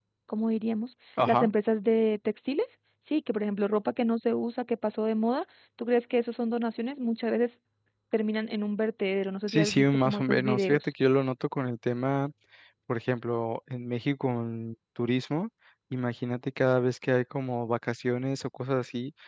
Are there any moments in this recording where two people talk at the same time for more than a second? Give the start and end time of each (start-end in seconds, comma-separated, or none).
9.5-10.9